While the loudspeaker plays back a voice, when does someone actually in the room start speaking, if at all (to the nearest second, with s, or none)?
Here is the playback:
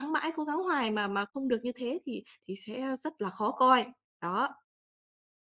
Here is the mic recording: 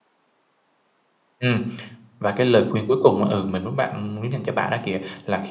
1 s